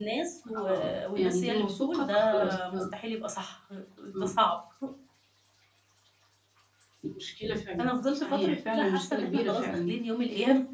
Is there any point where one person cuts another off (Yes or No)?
Yes